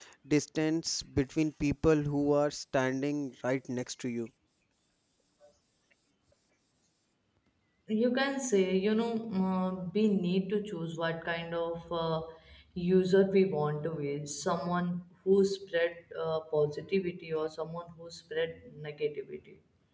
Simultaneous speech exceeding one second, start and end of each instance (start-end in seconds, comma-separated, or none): none